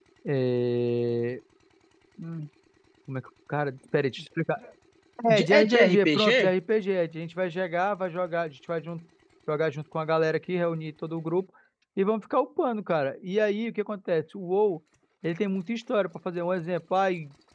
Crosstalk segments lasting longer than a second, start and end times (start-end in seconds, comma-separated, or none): 5.3-6.5